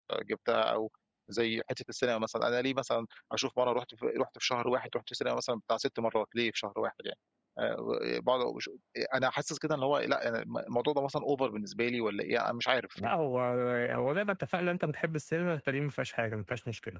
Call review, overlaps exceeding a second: none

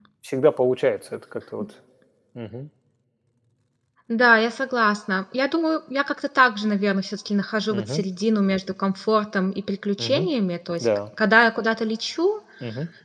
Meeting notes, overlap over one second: none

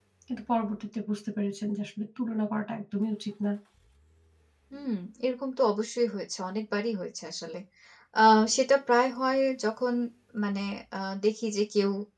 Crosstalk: none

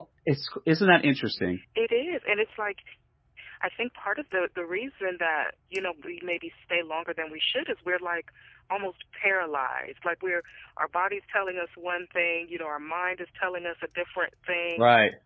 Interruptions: none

